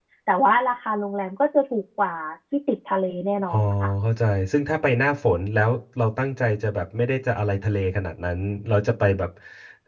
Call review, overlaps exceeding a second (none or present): none